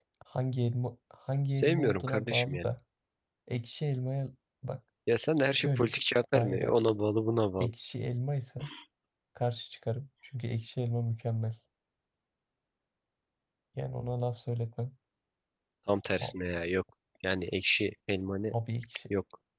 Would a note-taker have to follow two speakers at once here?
Yes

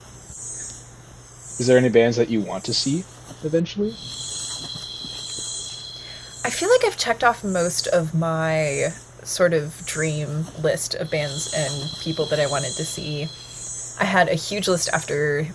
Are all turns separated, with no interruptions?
Yes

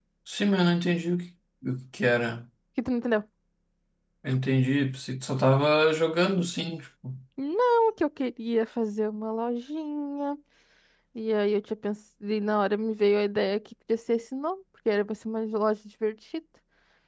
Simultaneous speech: No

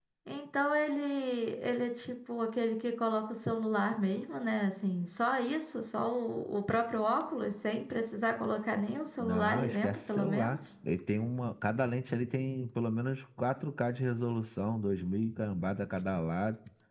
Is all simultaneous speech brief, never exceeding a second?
No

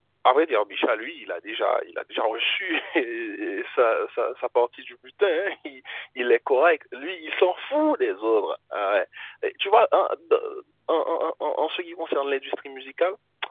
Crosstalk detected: No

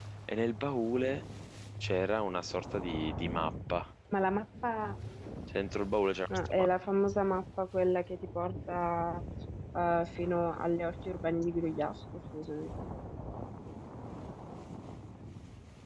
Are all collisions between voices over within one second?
Yes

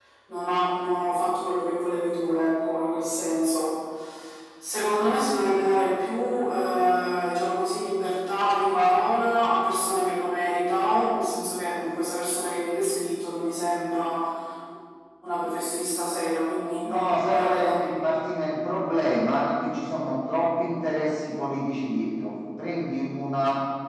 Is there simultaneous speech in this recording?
Yes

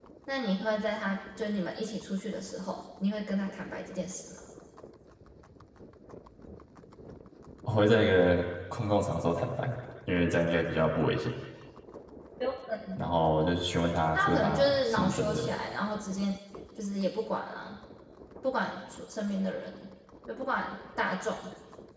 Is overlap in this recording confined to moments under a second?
No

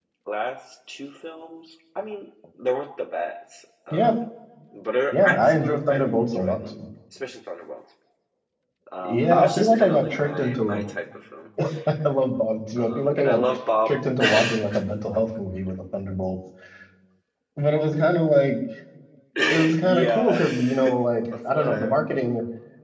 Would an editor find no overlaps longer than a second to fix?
No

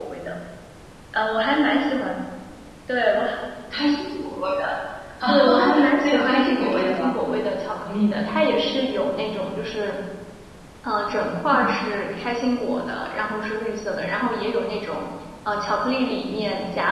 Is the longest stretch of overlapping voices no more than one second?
No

